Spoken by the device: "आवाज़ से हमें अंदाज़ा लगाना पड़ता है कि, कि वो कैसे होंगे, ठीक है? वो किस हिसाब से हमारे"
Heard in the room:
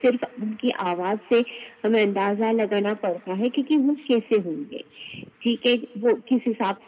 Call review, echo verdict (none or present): present